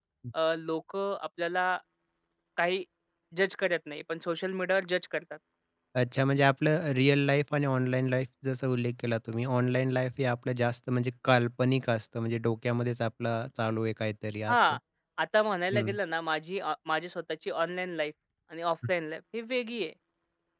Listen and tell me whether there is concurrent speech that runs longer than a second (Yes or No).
No